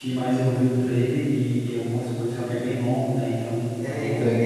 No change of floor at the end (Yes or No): No